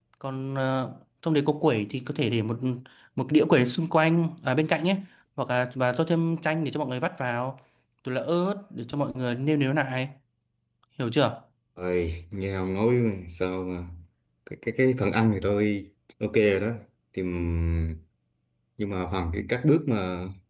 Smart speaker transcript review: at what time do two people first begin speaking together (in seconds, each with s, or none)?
none